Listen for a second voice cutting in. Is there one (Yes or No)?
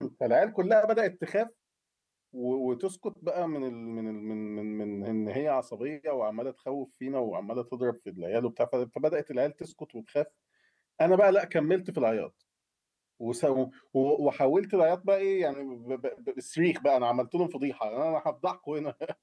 No